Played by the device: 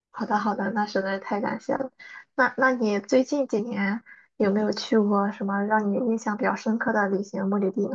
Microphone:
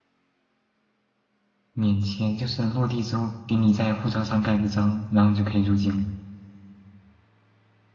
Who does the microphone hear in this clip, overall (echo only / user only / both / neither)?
user only